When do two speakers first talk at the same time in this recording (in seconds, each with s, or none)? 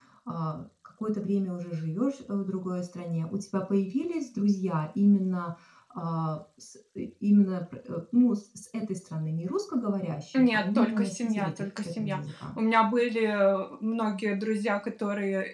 10.3 s